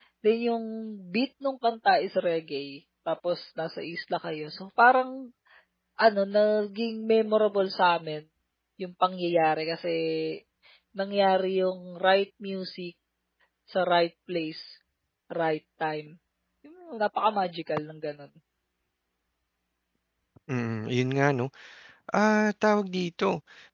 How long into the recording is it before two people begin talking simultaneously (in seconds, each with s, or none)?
none